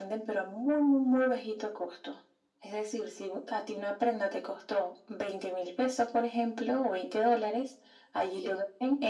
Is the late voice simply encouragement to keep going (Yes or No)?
Yes